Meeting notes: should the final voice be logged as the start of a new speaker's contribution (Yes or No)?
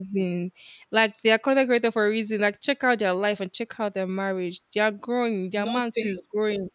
No